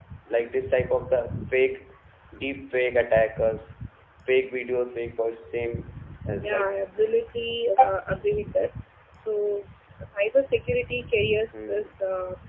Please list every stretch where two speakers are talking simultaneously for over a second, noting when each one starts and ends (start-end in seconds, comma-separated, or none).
none